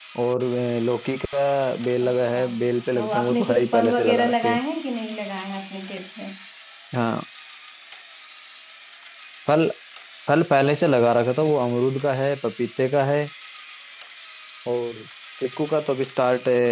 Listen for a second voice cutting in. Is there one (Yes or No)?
Yes